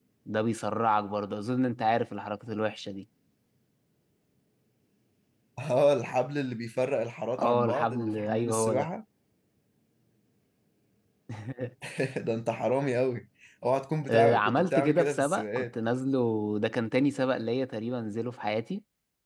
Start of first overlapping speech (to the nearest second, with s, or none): 7 s